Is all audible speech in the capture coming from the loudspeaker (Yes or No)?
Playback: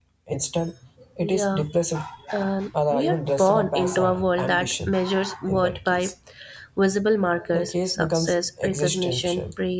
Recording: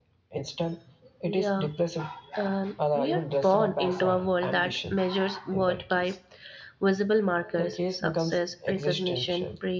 Yes